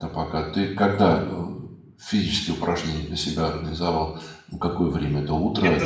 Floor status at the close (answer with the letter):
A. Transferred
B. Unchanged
A